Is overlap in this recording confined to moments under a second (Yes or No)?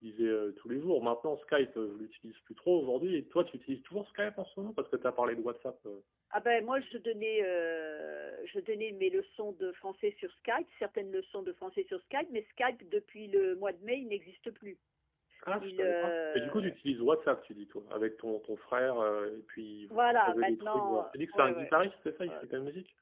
No